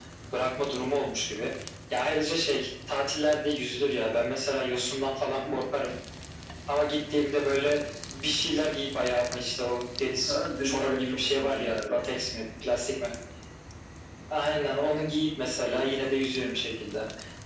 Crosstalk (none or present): present